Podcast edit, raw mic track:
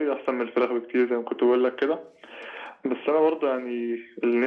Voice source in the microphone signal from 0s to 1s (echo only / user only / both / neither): echo only